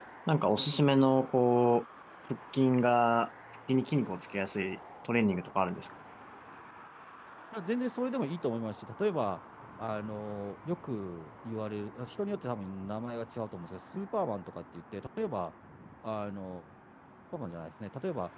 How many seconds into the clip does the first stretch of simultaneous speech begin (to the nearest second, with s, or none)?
none